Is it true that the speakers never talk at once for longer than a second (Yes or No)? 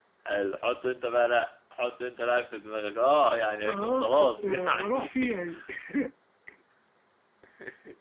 No